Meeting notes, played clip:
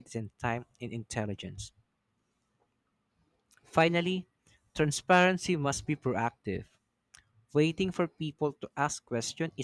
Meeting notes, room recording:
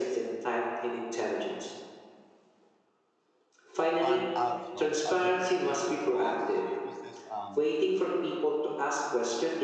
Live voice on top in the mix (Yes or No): No